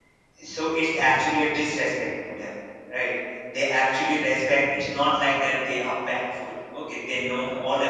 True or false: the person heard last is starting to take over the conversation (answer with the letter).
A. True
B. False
B